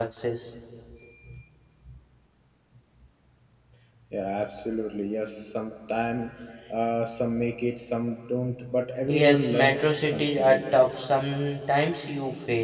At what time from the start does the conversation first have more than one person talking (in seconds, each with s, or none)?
9.1 s